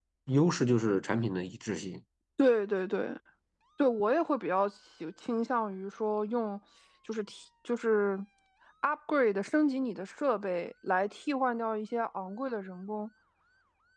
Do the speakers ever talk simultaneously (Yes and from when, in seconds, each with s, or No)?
No